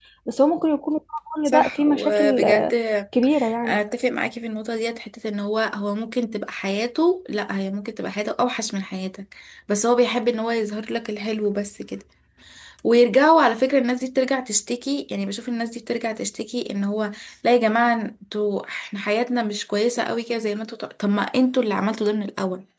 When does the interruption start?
1 s

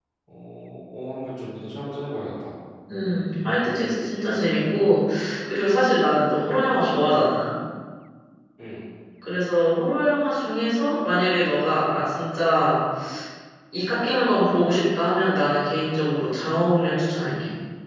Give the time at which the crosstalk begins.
none

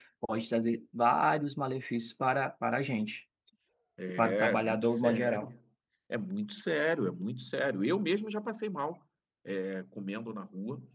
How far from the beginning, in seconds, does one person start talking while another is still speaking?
4 s

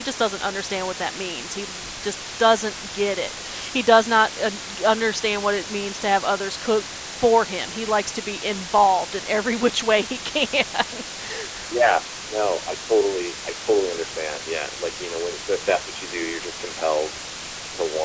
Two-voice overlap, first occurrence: none

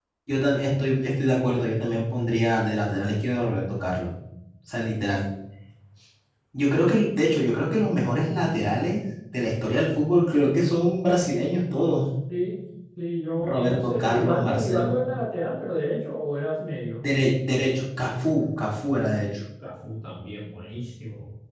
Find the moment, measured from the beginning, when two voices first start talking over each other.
13 s

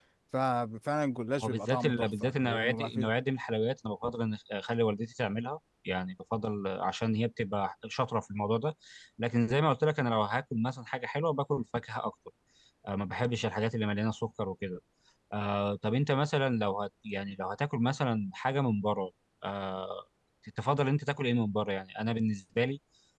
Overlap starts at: 1 s

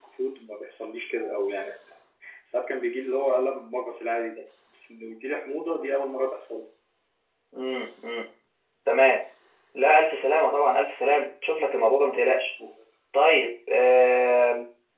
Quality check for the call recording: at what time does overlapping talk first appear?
none

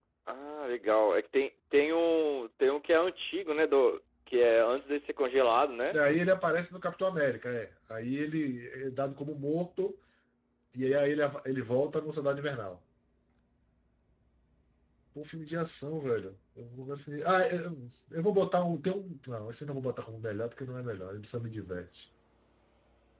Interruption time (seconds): none

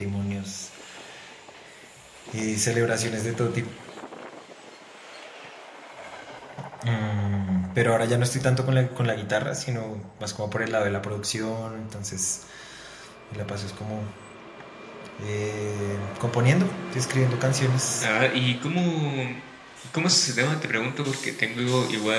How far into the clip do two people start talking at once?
none

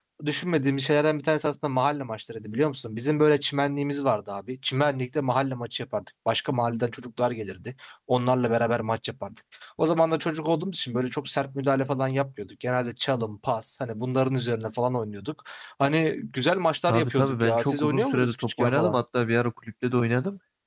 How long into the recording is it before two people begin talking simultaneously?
17 s

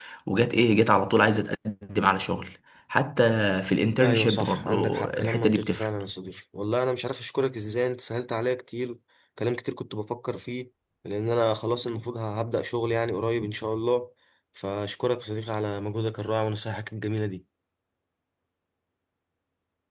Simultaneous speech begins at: 4 s

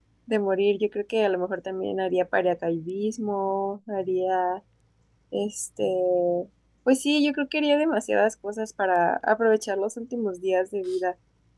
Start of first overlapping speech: none

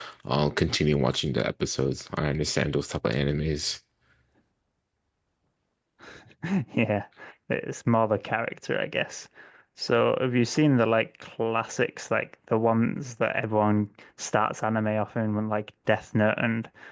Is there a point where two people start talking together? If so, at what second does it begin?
none

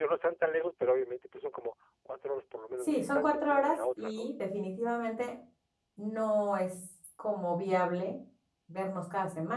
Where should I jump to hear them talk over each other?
3 s

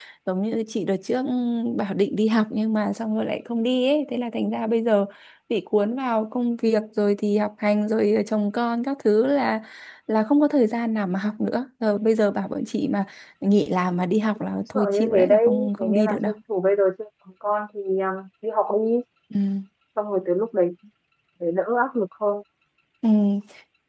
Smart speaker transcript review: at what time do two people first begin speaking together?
15 s

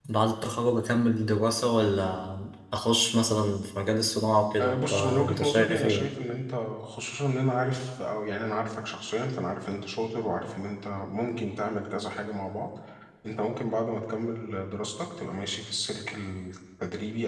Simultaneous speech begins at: 5 s

